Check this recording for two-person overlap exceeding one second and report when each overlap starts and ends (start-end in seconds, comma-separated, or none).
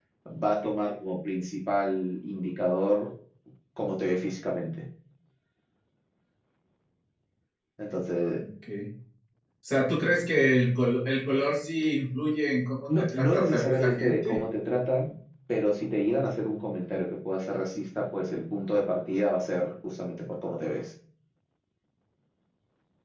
12.9-14.4